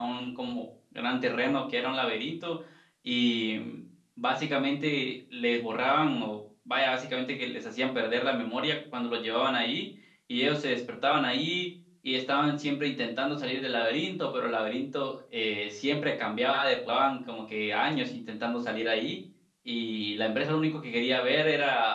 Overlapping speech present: No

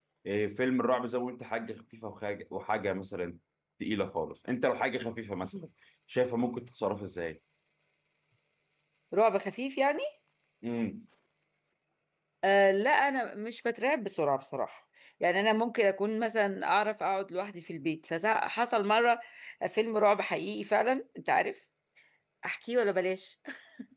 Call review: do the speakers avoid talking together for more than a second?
Yes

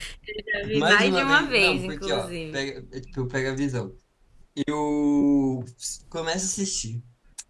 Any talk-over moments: Yes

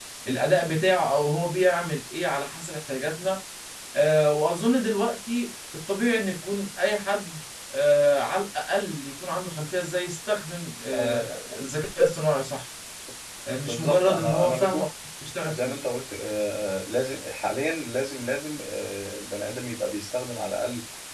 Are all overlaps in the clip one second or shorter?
No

